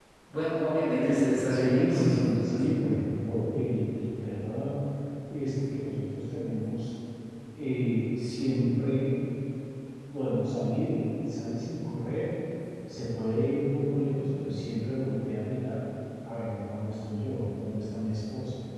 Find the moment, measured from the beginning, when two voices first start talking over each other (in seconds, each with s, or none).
1.2 s